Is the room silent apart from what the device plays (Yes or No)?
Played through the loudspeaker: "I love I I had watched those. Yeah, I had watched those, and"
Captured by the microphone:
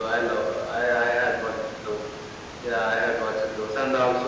Yes